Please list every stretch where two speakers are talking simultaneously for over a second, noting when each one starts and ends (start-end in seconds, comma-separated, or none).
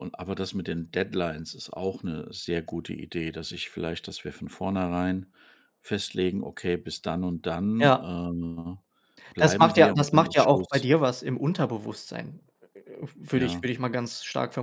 9.4-10.8